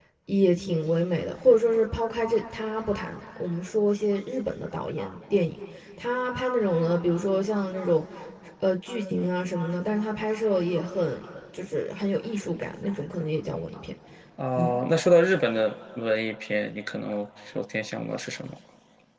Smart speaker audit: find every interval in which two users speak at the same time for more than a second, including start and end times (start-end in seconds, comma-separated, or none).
none